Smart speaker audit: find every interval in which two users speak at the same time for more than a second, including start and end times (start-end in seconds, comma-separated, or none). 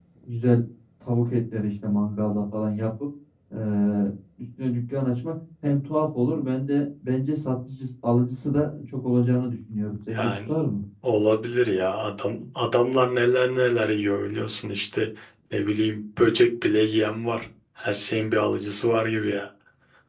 none